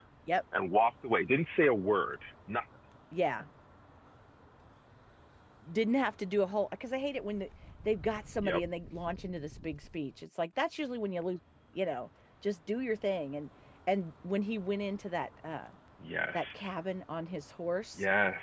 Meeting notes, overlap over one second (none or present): none